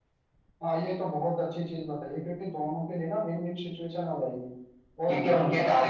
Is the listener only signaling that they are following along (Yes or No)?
No